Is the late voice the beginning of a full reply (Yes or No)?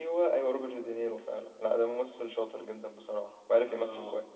Yes